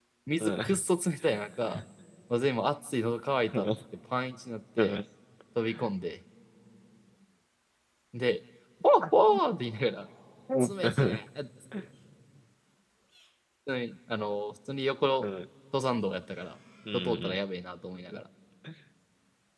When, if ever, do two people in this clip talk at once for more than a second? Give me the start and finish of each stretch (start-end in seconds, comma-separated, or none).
none